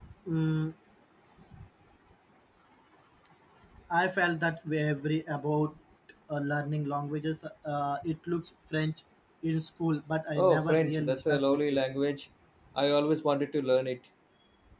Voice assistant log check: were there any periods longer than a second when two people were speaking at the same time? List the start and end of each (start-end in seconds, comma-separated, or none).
10.3-11.8